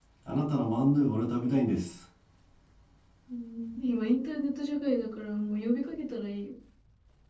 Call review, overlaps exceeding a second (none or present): none